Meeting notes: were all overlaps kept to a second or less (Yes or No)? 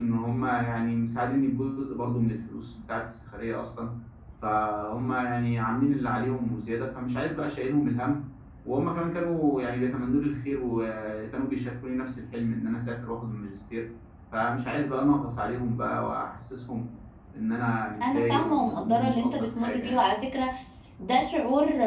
No